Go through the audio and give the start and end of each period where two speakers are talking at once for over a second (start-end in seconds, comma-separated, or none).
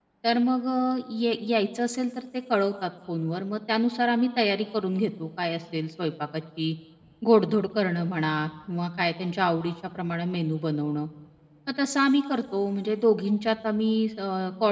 none